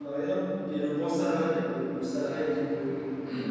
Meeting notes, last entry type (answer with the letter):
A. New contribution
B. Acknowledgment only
A